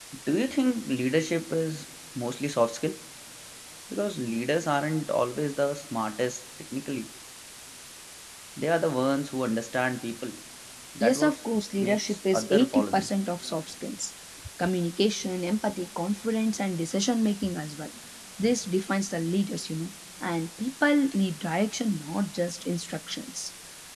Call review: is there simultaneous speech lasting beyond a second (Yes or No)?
Yes